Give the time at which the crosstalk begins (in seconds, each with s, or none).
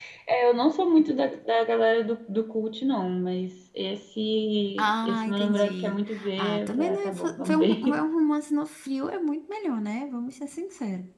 4.8 s